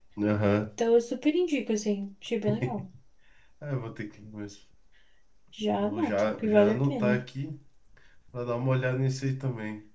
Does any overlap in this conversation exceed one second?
Yes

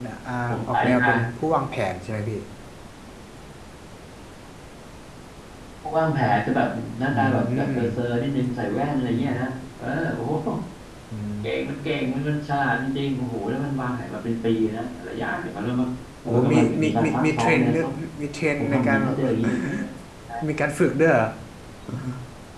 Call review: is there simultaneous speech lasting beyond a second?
Yes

